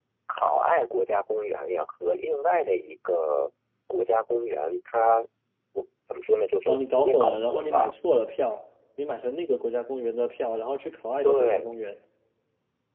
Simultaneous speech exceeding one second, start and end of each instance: 6.7-7.9

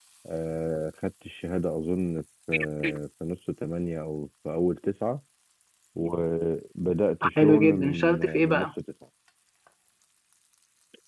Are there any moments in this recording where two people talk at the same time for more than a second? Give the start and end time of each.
7.2-8.7

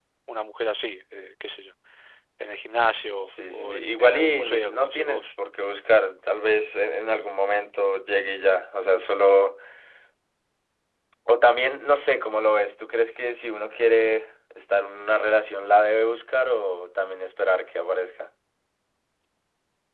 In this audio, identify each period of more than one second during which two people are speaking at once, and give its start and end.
3.2-5.3

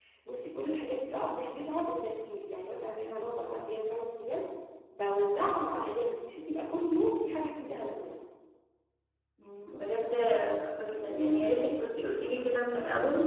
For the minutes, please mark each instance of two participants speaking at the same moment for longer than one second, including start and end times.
none

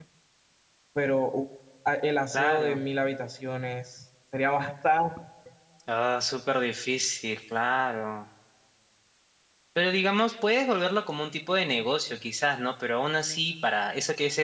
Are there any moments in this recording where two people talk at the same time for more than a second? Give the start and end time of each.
none

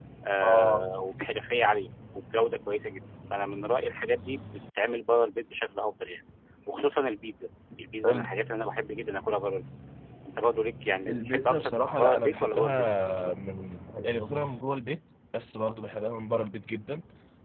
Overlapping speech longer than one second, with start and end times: 11.1-12.8

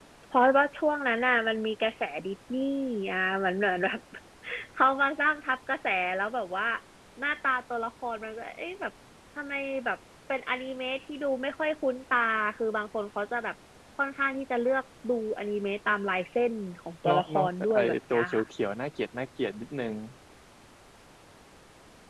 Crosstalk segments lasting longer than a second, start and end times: 17.1-18.4

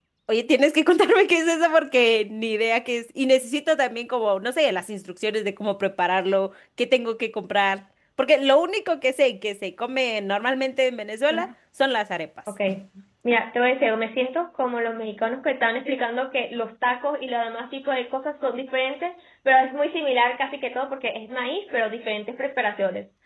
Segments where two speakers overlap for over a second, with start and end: none

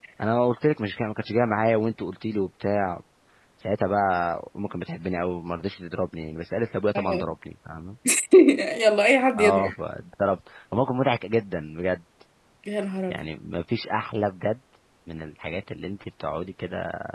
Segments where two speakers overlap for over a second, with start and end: none

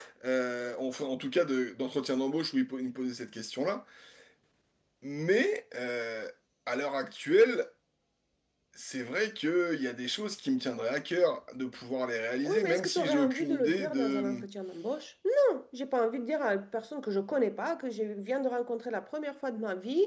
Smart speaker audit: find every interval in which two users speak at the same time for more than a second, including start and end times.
12.4-14.4

